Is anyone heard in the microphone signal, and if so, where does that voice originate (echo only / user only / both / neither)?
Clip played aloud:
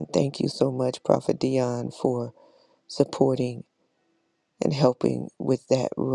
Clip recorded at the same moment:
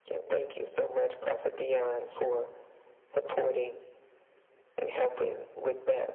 echo only